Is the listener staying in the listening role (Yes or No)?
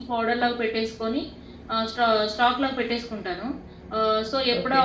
Yes